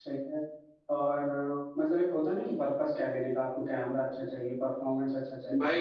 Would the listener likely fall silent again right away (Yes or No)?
No